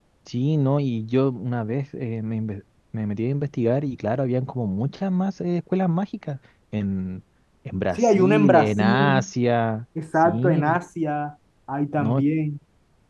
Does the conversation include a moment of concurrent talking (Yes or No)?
Yes